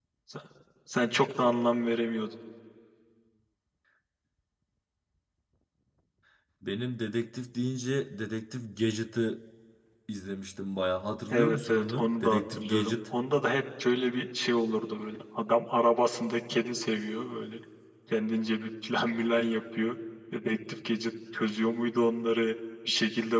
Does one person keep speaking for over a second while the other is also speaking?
Yes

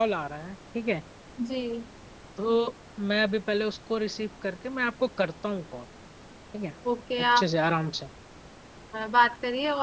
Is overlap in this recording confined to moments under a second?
Yes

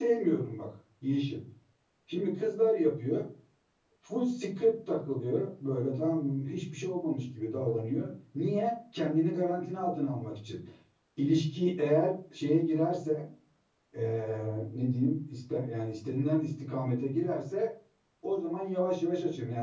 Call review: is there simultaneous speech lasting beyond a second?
No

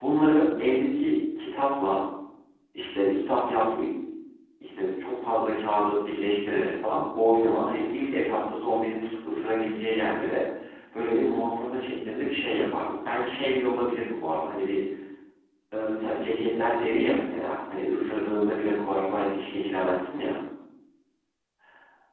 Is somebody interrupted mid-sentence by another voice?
No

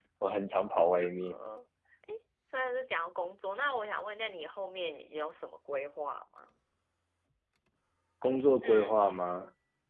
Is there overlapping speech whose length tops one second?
No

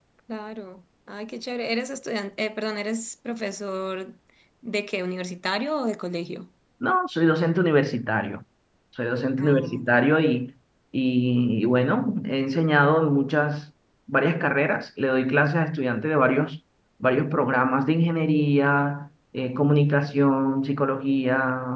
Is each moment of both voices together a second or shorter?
Yes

